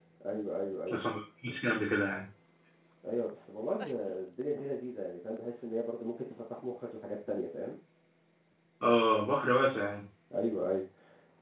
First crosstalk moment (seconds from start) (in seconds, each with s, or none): none